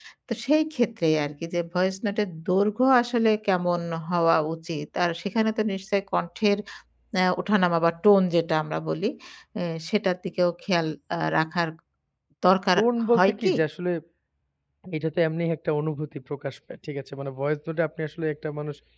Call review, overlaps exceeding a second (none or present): none